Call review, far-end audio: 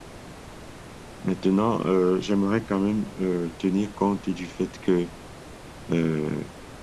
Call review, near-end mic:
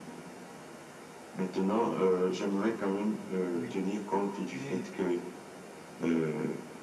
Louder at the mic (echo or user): echo